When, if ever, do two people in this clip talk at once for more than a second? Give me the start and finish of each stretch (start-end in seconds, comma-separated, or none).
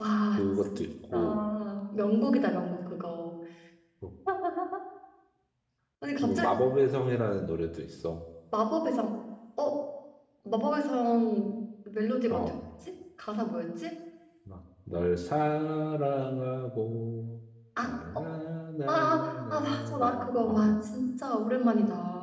18.9-20.8